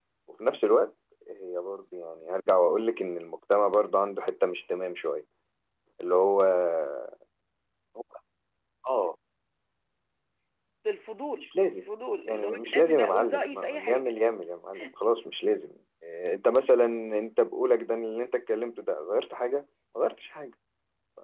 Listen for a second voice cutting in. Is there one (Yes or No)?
Yes